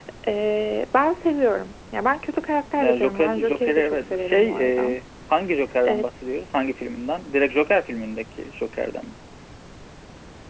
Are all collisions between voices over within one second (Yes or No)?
No